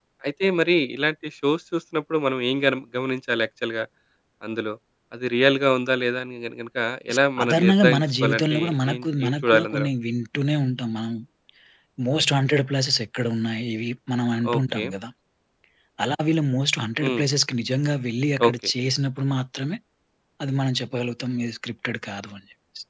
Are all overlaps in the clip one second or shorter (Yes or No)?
No